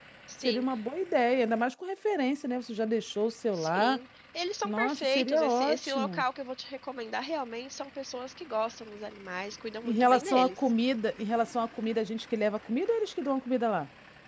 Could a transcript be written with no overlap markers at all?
No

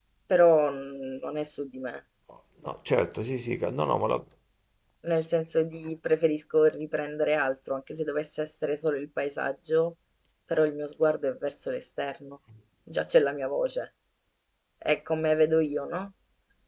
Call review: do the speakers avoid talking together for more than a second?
Yes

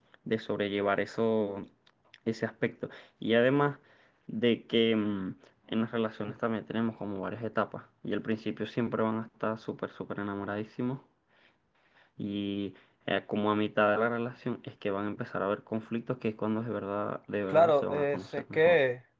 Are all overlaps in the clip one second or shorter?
No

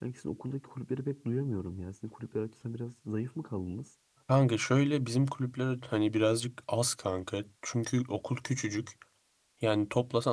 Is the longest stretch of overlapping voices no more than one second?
Yes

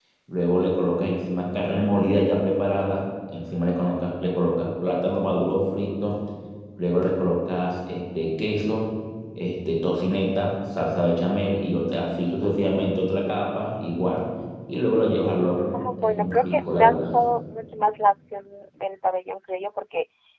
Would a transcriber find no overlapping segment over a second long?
No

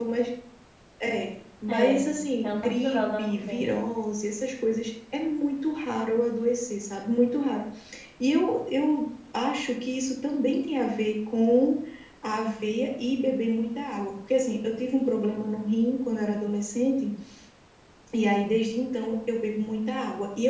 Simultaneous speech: Yes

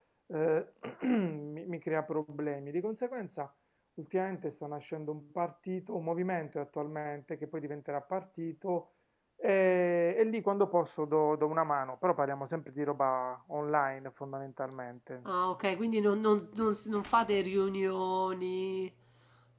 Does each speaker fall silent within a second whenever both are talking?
Yes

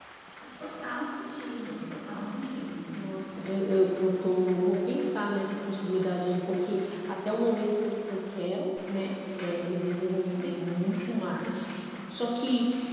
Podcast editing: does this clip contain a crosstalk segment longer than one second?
No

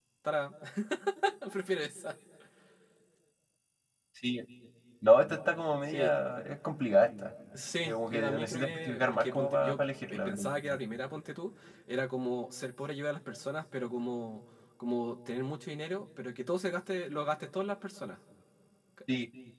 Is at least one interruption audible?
Yes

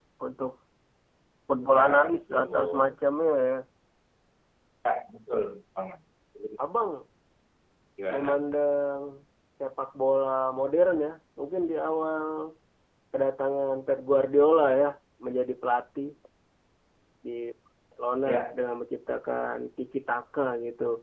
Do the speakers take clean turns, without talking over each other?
No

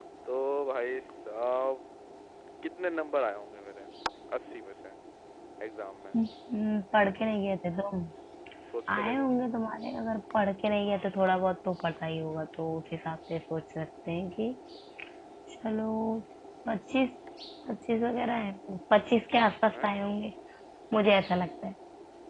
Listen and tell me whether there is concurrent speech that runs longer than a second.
No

